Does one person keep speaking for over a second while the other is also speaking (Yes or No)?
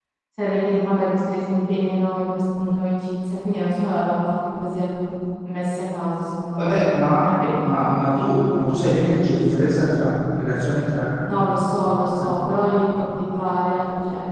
No